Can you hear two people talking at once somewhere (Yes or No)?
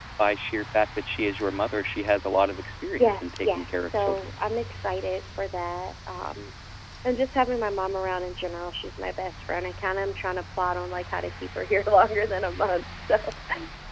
Yes